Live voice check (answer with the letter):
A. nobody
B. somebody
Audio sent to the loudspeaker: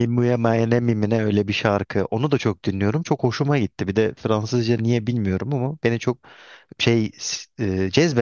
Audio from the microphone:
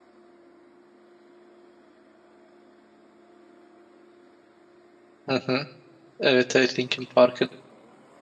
B